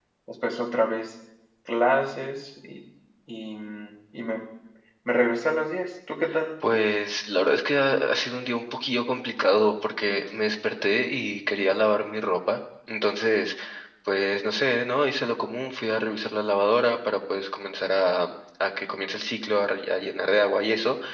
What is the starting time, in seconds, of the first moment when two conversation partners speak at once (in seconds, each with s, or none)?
none